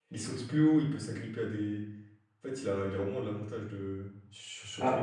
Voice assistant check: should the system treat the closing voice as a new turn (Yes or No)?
No